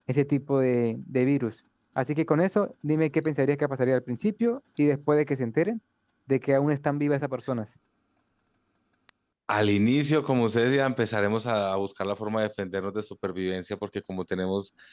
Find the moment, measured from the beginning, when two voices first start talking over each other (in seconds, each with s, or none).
none